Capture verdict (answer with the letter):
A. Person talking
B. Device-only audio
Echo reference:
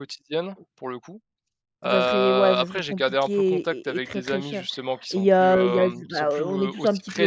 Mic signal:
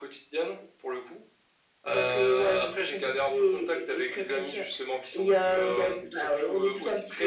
B